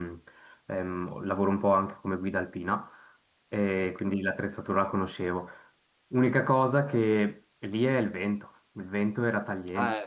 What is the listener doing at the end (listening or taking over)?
listening